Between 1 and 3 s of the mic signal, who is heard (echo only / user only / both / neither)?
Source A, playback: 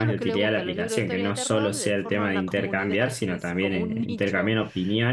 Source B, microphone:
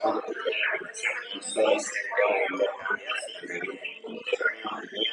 echo only